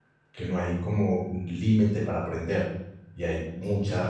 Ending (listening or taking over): listening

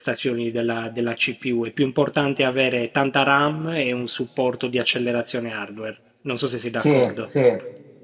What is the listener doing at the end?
taking over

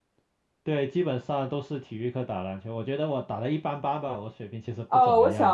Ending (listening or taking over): taking over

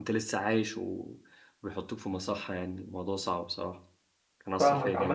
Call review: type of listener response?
taking over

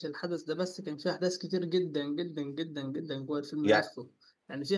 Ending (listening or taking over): listening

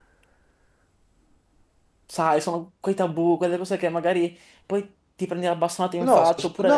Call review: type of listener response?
taking over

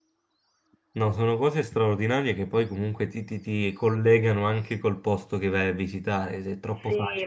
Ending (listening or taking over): taking over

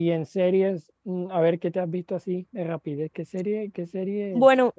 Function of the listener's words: taking over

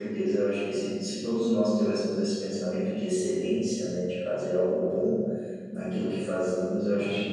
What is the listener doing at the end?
listening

